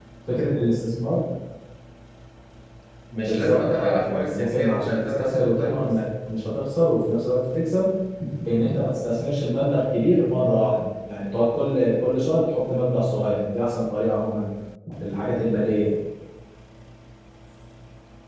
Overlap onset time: 3.1 s

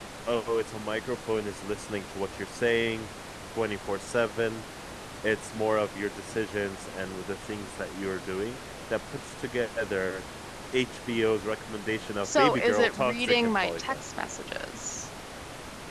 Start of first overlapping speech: 12.2 s

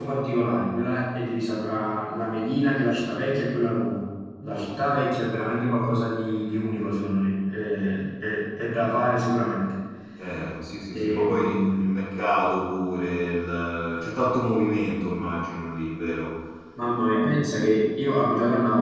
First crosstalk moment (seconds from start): 10.9 s

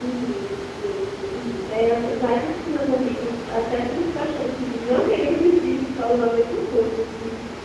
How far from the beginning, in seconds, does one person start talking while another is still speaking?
none

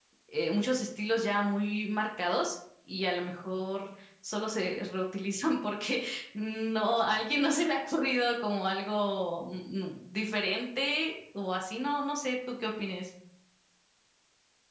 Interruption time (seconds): none

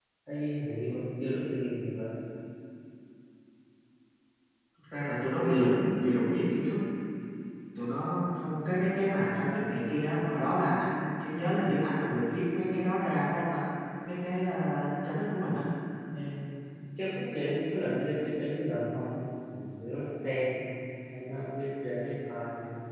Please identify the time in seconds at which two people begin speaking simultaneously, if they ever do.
none

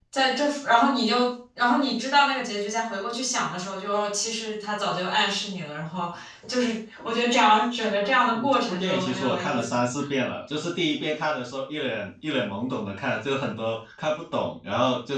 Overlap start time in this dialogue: 8.3 s

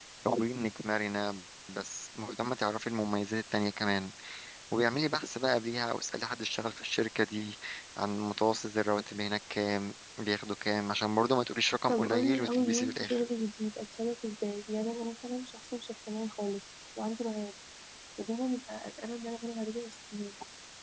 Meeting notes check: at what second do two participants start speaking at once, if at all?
11.9 s

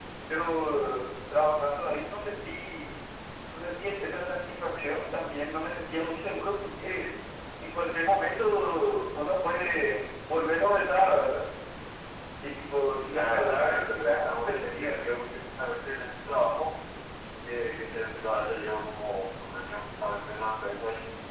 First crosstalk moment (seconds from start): 13.1 s

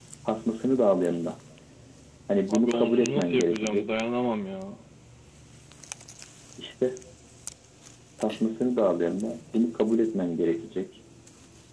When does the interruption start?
2.5 s

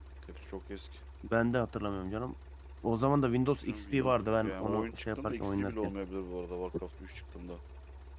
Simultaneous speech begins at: 3.6 s

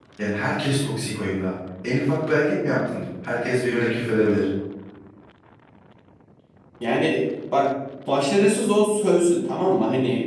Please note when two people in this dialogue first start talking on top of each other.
none

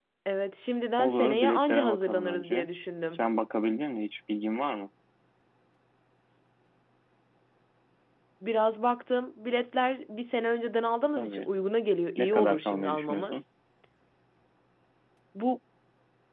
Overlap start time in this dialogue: 1.0 s

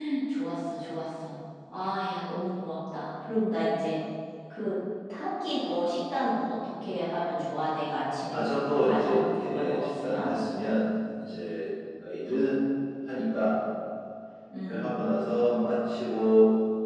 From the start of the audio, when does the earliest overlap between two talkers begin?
8.3 s

